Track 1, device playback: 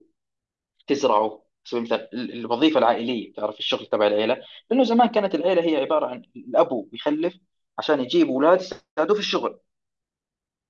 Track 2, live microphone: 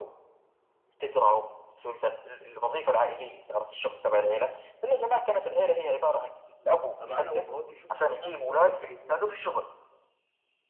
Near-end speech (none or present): present